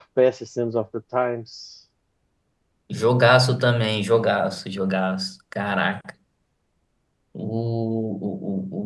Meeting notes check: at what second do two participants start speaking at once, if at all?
none

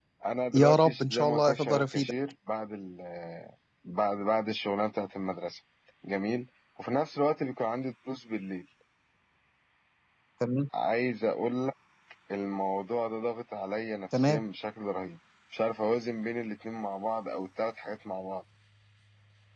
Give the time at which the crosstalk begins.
1 s

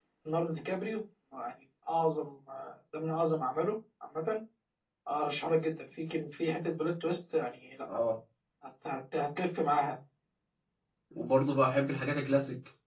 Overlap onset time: none

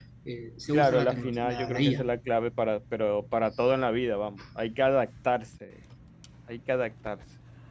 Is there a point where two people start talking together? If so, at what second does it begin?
1 s

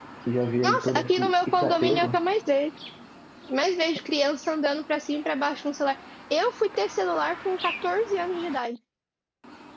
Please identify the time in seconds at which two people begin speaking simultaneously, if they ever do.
1 s

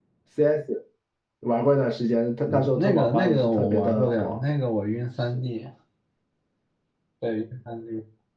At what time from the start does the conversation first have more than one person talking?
2 s

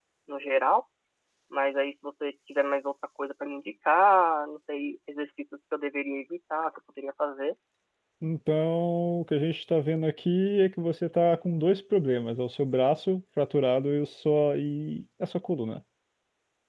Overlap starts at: none

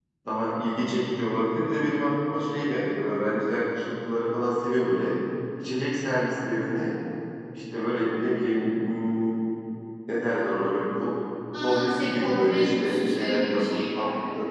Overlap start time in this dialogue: 12 s

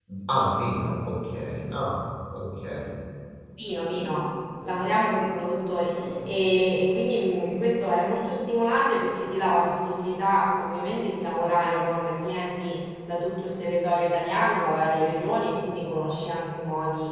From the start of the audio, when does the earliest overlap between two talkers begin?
none

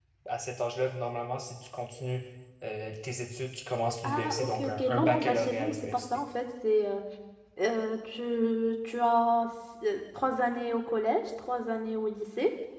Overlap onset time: 4 s

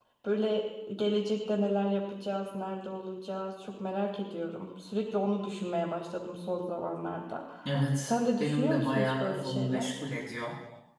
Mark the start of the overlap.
8 s

